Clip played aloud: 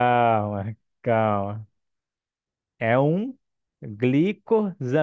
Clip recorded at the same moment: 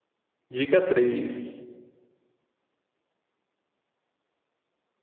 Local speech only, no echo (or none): Dica 3.